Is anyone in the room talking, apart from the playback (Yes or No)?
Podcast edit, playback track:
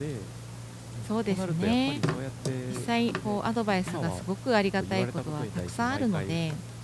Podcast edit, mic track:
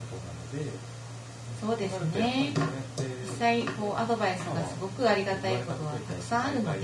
Yes